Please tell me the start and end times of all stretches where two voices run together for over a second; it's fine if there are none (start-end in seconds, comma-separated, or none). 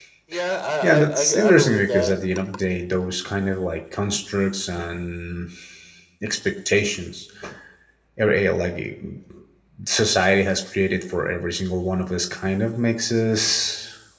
0.8-2.1